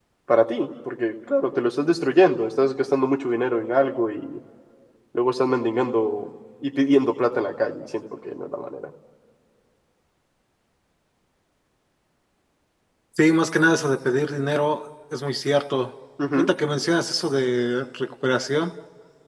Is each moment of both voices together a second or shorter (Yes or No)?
Yes